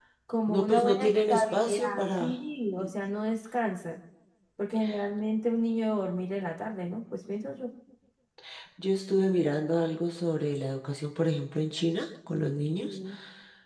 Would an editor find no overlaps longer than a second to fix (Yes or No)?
No